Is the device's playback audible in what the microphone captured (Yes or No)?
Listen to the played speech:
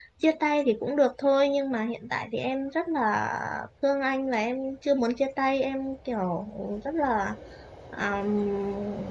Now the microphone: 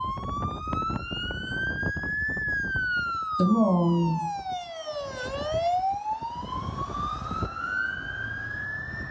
No